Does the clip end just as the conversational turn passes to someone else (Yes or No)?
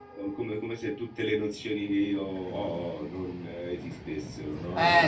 Yes